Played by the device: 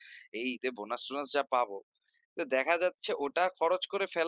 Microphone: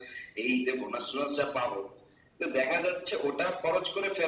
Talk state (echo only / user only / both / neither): echo only